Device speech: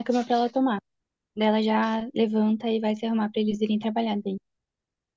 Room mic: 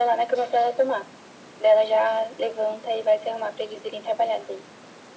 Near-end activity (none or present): none